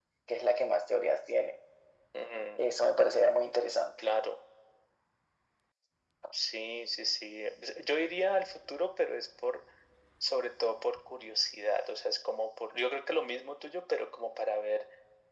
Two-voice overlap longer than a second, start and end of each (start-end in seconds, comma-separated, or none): none